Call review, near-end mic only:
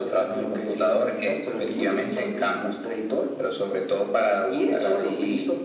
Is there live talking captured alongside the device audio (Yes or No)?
No